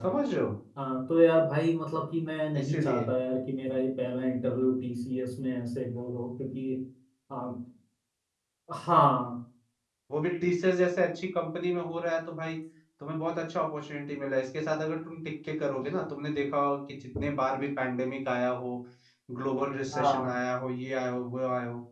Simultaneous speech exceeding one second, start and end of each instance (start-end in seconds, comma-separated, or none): none